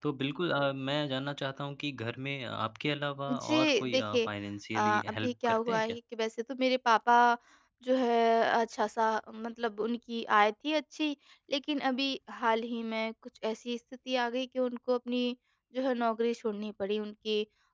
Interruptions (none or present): present